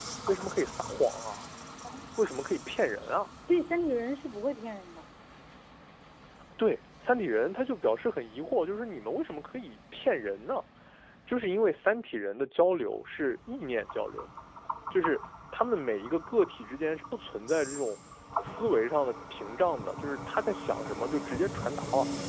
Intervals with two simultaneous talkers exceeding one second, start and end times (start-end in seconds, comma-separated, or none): none